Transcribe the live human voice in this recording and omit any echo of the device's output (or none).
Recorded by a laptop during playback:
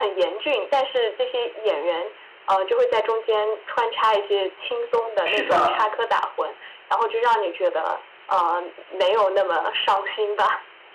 是的，